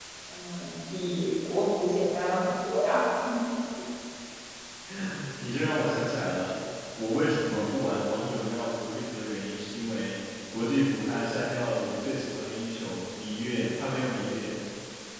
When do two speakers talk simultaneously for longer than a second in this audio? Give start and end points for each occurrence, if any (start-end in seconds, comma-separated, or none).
none